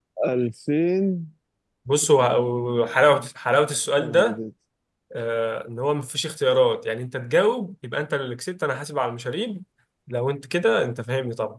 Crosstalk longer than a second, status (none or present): none